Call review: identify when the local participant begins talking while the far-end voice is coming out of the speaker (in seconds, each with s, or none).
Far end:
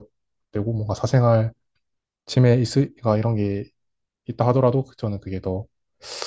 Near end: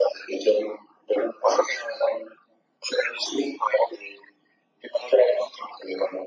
none